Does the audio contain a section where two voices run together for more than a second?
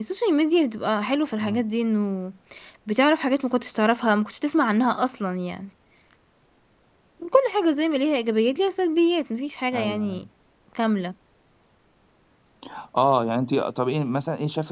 No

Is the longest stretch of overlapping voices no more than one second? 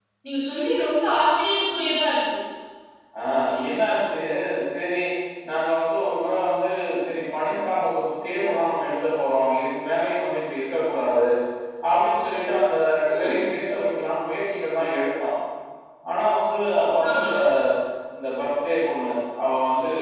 Yes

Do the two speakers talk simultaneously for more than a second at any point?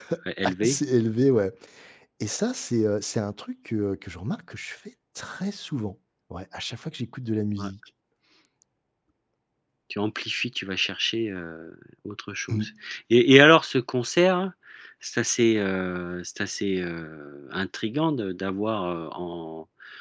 No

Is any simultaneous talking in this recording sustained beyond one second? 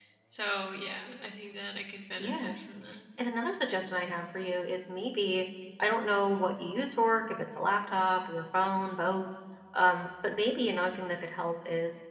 No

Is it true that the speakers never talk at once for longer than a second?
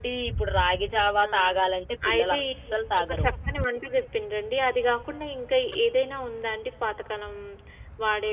Yes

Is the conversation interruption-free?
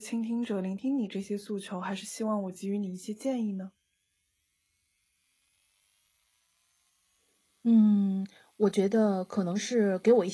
Yes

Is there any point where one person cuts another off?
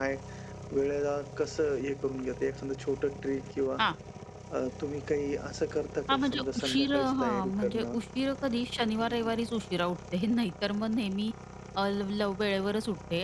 Yes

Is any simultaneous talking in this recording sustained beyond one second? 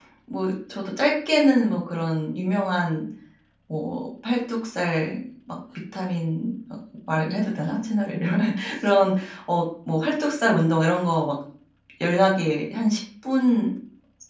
No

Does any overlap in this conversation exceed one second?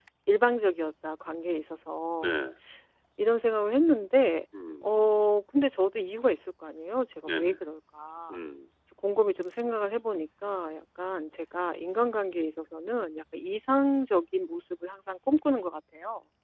No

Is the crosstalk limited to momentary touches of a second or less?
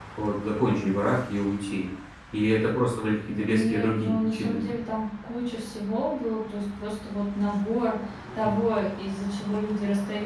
No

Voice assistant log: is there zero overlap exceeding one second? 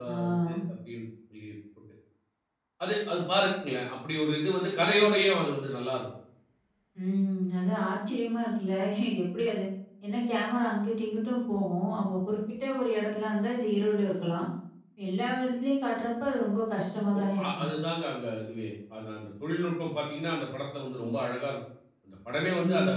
Yes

